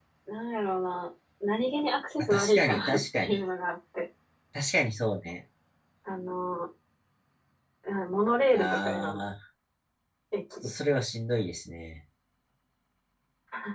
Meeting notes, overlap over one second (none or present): present